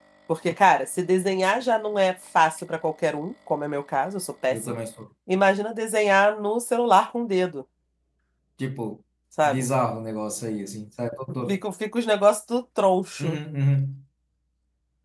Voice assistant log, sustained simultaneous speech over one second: none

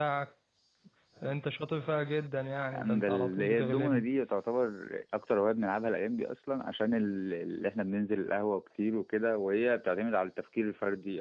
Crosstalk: present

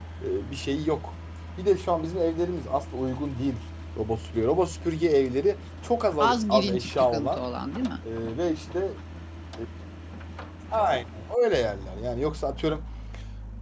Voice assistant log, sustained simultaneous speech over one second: present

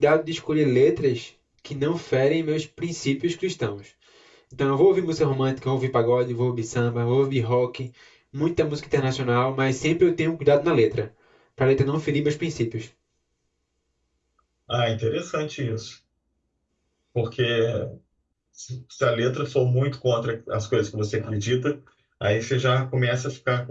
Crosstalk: none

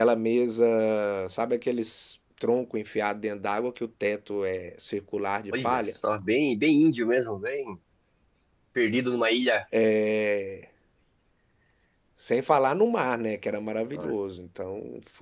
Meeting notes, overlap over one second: none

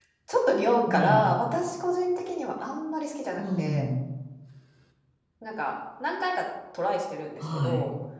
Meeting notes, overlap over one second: none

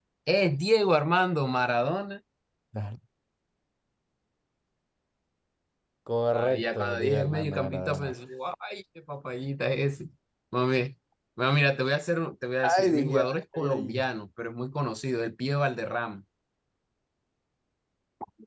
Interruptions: present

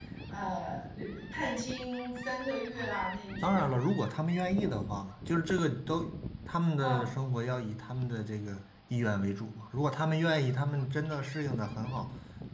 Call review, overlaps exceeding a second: none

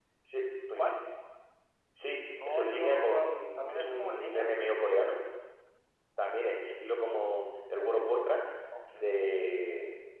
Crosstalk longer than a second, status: present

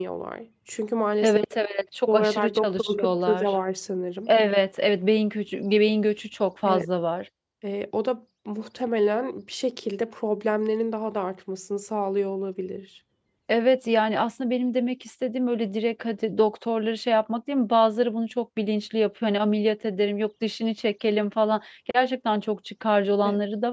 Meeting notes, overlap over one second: present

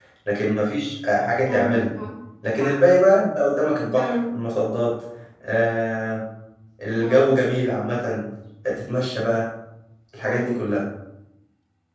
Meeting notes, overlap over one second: none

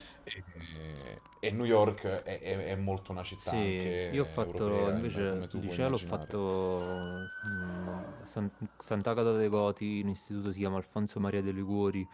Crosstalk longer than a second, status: present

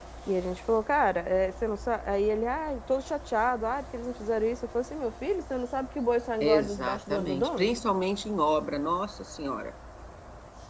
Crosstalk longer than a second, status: present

